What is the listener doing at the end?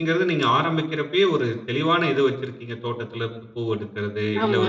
listening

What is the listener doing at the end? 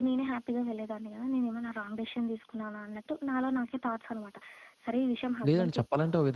taking over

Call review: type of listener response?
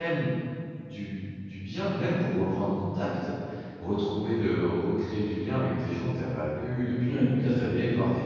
taking over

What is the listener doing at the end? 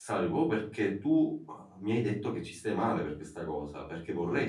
listening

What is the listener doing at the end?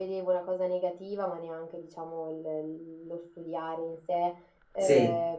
listening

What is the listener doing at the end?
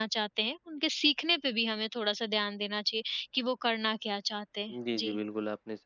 taking over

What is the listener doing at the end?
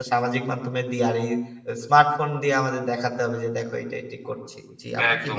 taking over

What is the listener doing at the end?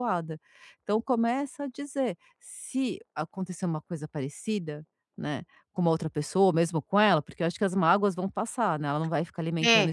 taking over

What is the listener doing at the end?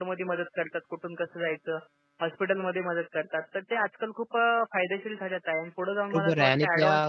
taking over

